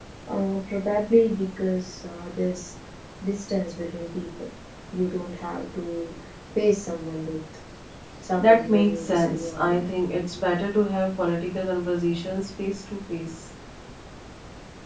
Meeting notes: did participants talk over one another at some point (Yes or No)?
Yes